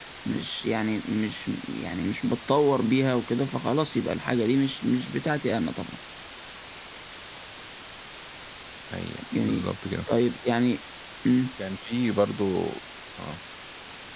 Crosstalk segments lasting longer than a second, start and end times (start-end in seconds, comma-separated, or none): none